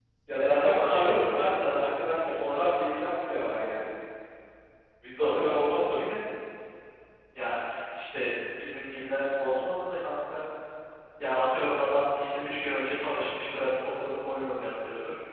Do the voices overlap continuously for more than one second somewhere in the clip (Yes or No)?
Yes